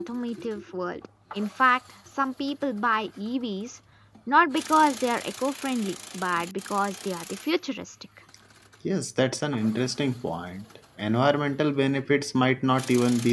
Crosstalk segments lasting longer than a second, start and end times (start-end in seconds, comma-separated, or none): none